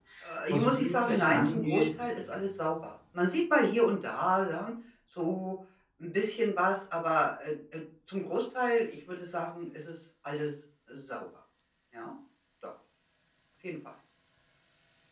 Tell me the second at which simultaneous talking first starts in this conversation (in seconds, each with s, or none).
0.5 s